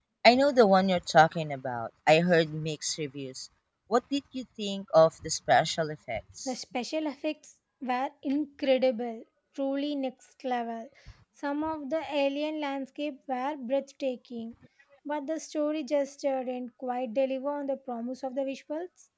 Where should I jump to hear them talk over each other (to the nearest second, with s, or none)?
none